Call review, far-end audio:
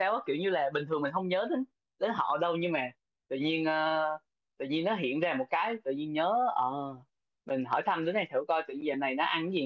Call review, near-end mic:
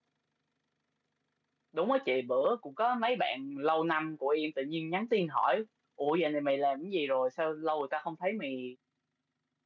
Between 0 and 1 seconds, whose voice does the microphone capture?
neither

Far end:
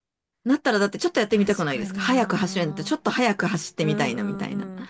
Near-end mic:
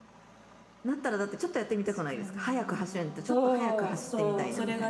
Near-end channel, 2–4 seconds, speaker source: both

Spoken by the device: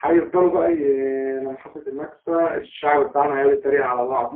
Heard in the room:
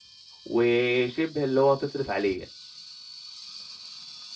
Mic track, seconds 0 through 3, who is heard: user only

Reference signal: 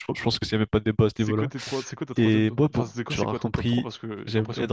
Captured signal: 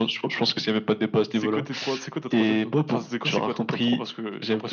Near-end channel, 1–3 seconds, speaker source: echo only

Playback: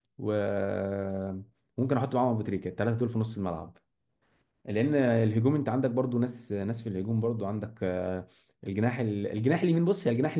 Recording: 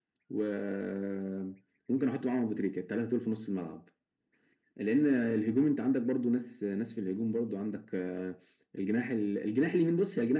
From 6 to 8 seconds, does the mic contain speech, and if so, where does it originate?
echo only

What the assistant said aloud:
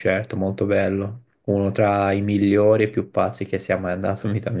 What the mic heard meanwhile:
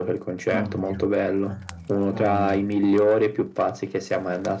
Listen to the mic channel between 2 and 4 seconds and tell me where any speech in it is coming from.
both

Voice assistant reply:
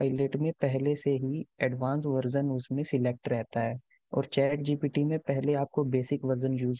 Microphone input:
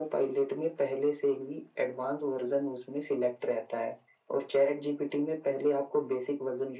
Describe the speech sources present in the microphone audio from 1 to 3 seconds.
echo only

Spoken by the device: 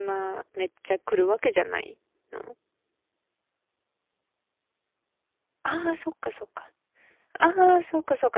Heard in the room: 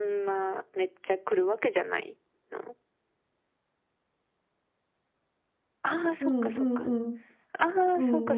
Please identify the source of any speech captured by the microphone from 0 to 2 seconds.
echo only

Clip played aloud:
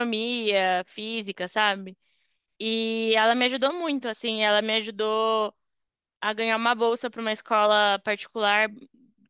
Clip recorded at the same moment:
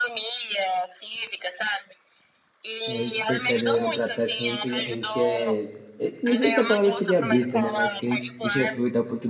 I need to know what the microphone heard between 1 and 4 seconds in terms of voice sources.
both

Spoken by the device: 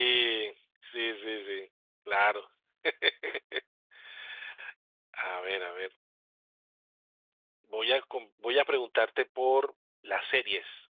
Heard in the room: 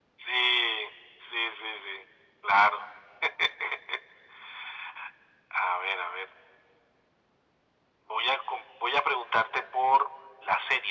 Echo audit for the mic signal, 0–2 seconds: echo only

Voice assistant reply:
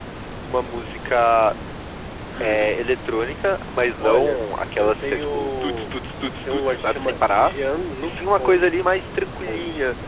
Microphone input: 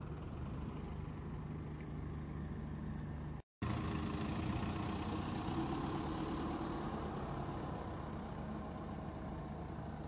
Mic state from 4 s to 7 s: neither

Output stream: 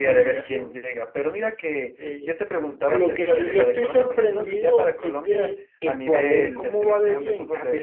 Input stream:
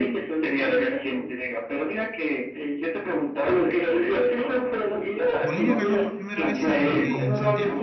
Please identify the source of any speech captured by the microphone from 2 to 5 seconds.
echo only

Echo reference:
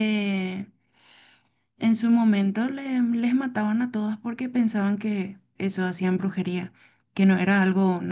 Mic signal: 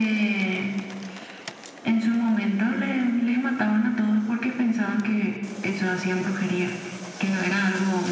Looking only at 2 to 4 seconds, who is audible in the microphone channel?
echo only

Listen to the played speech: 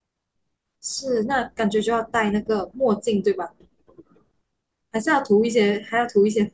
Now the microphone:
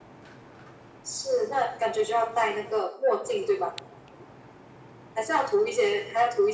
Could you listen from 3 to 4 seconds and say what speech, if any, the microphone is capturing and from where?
echo only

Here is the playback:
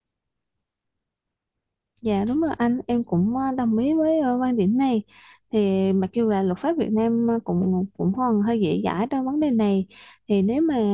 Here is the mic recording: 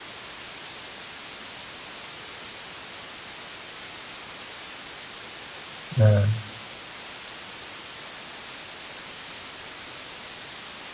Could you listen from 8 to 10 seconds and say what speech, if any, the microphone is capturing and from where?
neither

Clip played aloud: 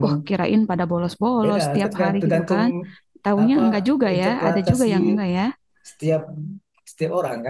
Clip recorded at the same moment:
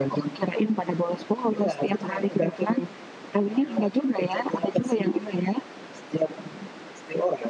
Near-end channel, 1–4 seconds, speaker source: echo only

